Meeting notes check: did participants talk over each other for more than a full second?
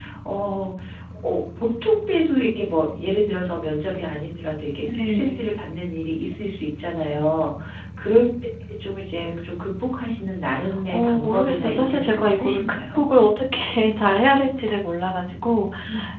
Yes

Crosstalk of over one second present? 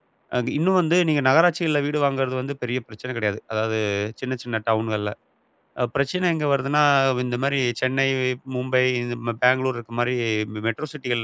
No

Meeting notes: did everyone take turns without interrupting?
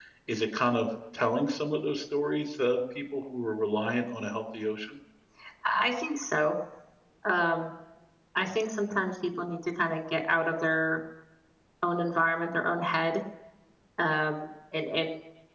Yes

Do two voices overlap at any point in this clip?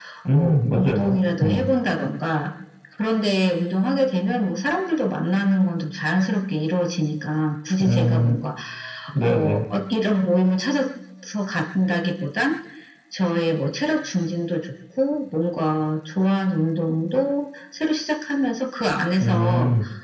Yes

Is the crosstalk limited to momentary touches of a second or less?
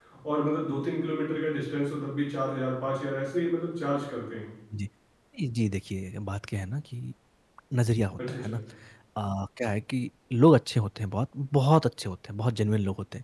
Yes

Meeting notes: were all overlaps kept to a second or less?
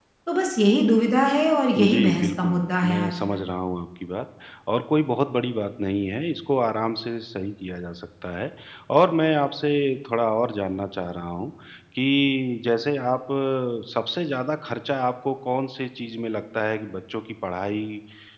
No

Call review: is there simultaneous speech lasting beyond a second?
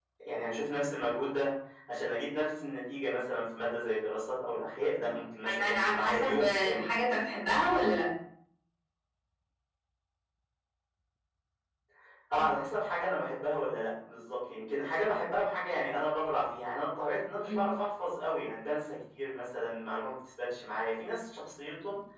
Yes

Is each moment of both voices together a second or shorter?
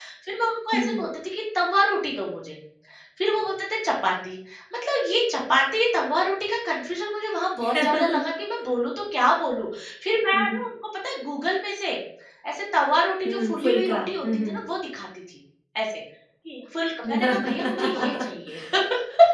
No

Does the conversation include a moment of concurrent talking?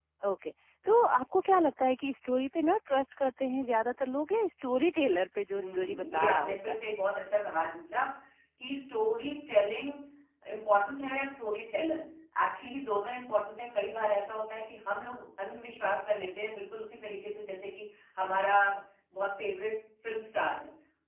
Yes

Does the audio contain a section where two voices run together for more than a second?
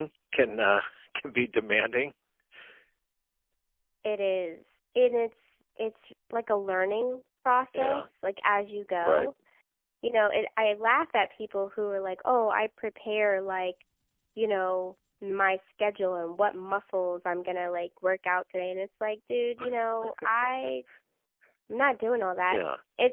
No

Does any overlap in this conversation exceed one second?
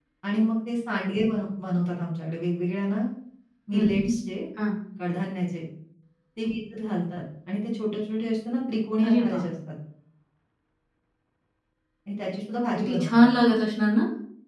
No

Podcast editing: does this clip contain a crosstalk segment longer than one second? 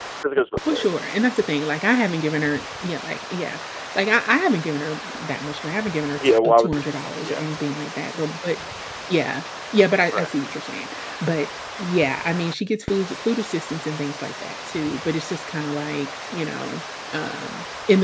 Yes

